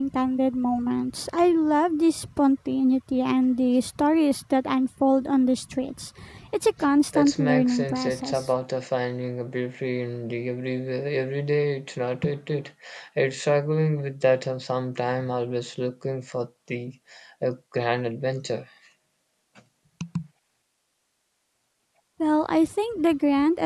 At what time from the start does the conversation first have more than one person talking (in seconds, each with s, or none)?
7.1 s